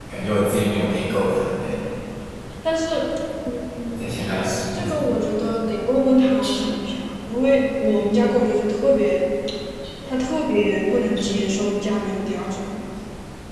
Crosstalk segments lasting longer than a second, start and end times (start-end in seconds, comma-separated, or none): none